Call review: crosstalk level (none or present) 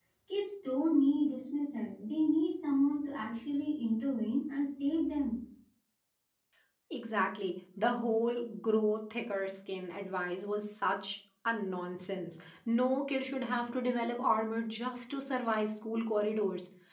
none